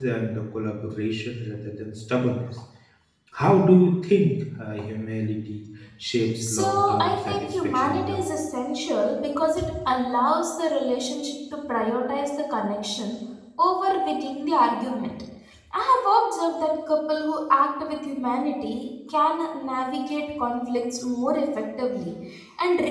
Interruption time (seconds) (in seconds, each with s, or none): 6.4 s